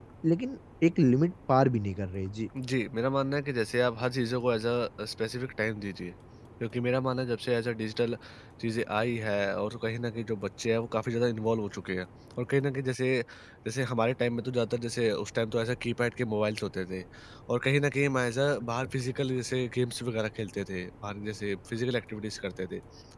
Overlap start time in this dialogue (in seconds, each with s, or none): none